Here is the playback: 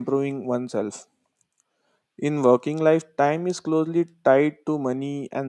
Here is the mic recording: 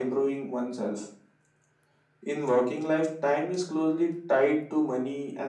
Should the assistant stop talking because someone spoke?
No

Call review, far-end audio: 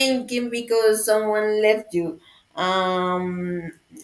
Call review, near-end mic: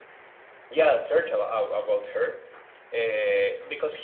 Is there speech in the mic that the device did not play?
Yes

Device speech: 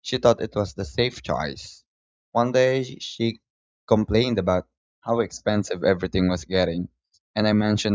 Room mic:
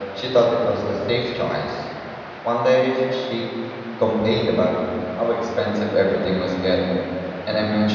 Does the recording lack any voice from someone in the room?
Yes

